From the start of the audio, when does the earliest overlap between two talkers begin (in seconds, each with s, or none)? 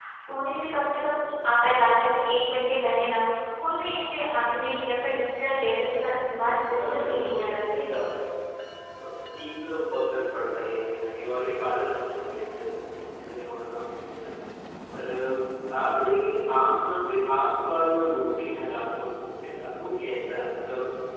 6.3 s